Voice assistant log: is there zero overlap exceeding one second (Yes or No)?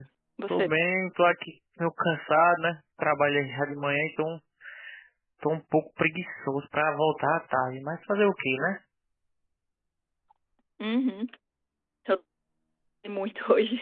Yes